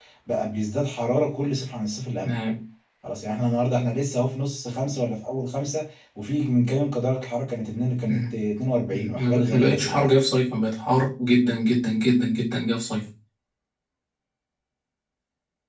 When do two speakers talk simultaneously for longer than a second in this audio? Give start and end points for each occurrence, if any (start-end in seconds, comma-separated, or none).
8.9-10.1